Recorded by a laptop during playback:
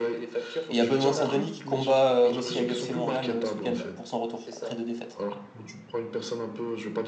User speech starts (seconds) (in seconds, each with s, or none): 0.7 s